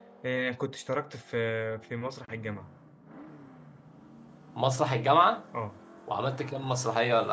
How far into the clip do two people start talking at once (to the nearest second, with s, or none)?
none